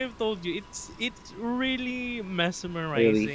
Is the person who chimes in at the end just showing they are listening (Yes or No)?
Yes